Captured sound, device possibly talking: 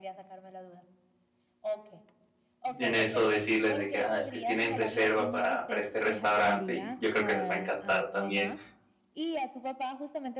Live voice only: en eso decirles de que: "Ah, es que tienen reserva para para este restaurante". Y yo creo que les va a encantar también.

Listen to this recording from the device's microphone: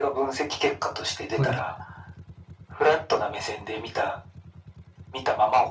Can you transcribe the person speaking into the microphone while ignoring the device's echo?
ほうですね。

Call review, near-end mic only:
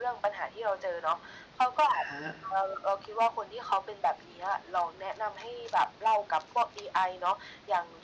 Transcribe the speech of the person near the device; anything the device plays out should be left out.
อะฮะ

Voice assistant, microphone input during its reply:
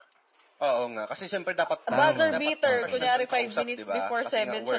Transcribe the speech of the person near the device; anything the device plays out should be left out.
Tama oo.

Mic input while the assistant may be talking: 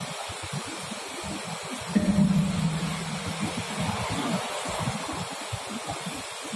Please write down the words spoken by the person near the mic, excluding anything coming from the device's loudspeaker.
Ừm.

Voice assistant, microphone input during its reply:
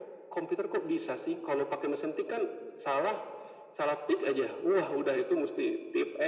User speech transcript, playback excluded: none

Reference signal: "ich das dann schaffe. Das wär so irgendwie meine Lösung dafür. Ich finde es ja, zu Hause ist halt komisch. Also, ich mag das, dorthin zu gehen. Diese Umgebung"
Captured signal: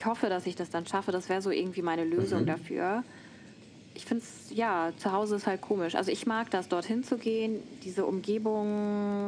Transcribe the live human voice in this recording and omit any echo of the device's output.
Mhm.

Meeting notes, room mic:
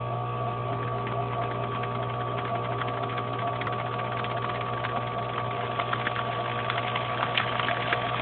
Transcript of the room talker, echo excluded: none

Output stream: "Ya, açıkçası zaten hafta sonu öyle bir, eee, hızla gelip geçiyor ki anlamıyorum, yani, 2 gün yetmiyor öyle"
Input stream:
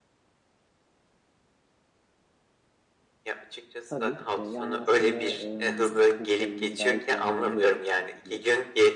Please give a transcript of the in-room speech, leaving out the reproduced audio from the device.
Tabii. Iıı, yani, aslında, ımm, bu problemini gayet iyi anlayabiliyorum. Iıı, hani,

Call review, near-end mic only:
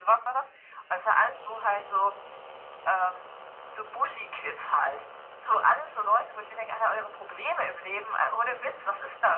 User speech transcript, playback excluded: none

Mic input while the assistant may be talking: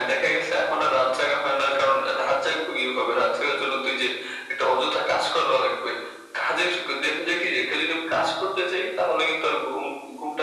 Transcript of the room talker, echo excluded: none

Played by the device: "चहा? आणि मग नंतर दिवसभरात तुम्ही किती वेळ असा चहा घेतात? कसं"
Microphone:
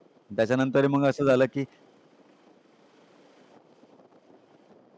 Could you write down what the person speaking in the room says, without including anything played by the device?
त्याच्यानंतर मग असं झालं, की

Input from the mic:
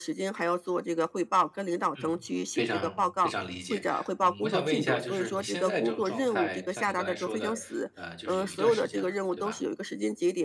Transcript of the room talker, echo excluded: 嗯，非常非常理解。嗯，我想问一下，就是你现在这种状态，像你刚才说的，呃，就是有一段时间了，对吧？

